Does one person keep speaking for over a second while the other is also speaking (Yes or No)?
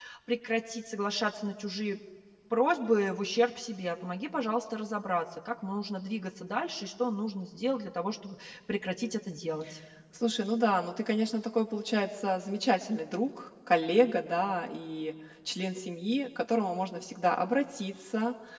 No